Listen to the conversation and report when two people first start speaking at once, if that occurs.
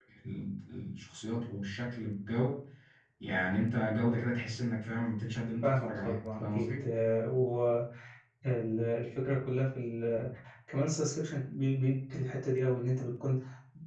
6 s

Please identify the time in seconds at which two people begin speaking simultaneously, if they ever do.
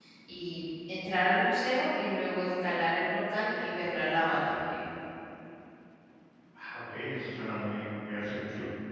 none

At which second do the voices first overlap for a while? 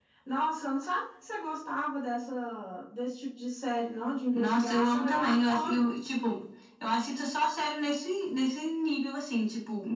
4 s

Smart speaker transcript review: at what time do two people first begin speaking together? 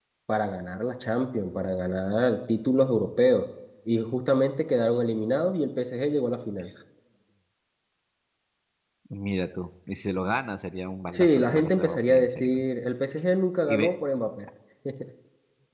11 s

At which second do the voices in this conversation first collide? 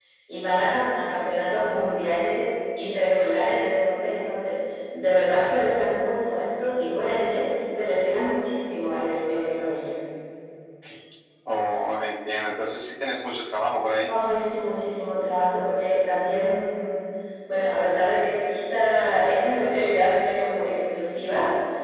none

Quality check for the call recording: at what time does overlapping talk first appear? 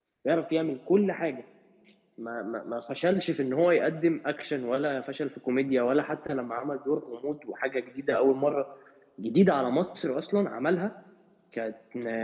none

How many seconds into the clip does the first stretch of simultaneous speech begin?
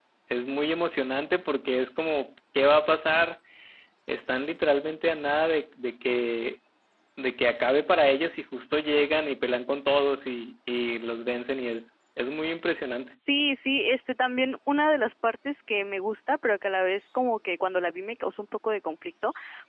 none

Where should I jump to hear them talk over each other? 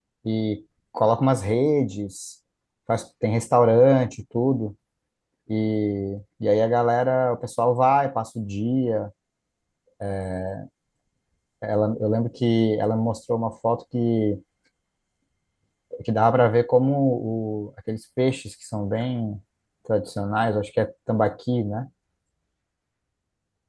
none

